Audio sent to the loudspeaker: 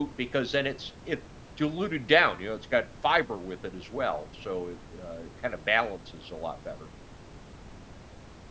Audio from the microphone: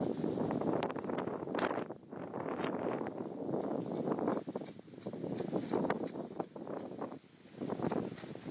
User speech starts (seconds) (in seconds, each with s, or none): none